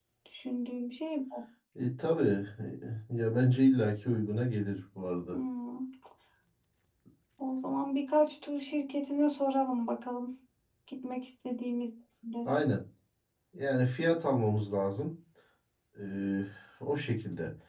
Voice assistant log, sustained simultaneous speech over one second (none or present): none